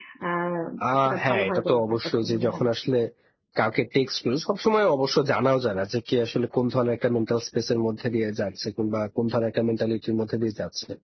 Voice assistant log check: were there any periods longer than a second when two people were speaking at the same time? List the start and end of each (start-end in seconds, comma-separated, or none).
1.2-2.6